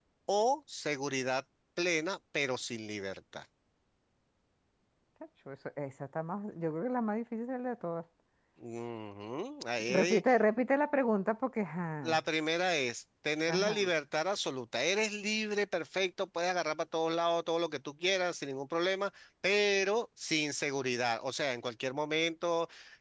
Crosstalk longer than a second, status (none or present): none